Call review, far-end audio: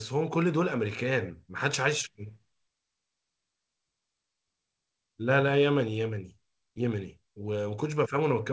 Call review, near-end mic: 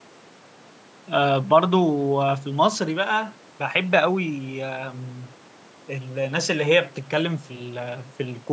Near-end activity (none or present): present